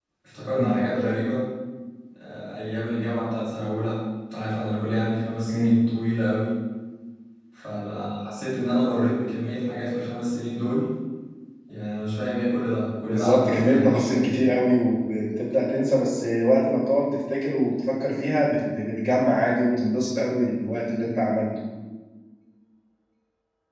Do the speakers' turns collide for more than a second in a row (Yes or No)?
Yes